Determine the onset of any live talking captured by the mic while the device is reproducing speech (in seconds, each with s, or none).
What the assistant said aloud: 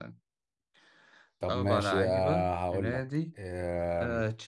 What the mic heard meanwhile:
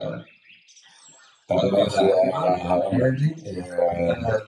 none